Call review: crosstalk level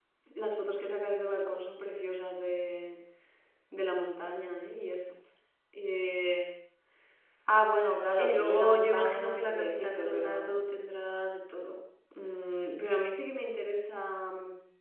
present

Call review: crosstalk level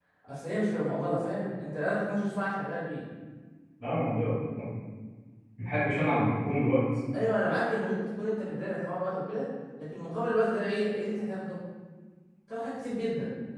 none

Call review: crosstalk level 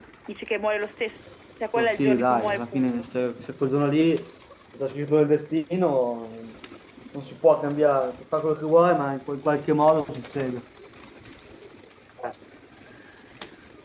present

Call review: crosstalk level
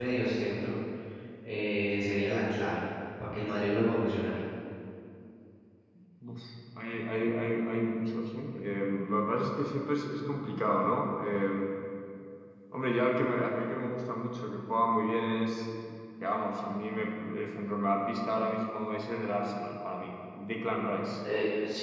none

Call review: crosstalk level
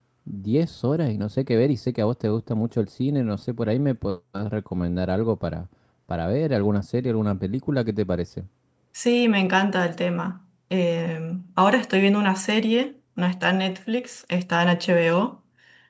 none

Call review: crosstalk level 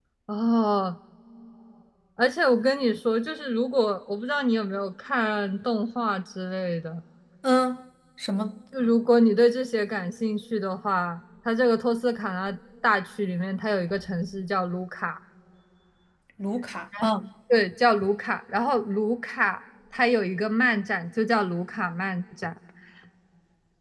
none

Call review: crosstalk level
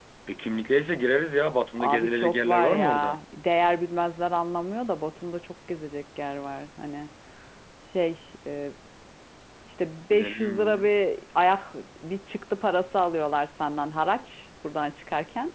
present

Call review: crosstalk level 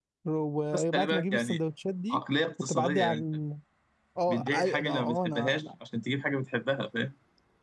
present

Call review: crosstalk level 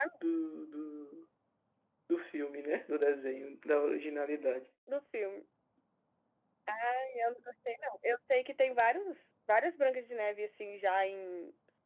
none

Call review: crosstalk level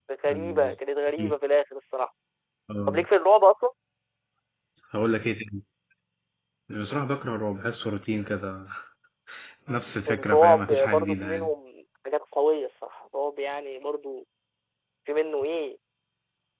present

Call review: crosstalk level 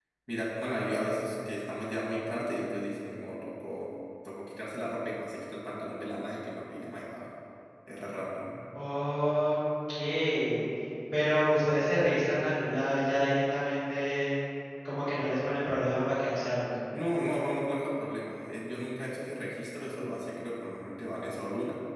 none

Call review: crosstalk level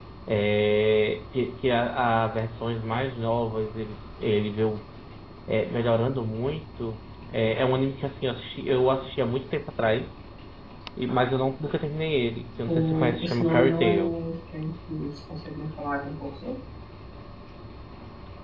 present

